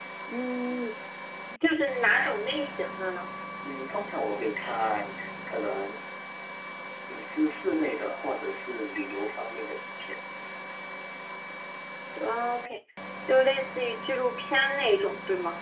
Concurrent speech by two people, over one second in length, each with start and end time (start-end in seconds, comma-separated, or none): none